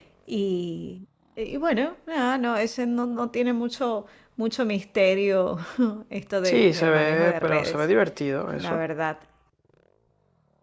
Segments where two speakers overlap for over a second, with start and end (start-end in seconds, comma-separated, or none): 6.4-7.8